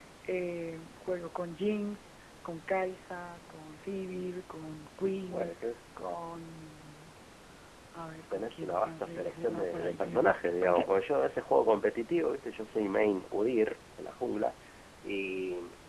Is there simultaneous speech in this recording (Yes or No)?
Yes